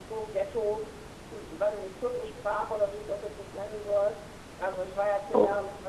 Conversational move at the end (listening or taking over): listening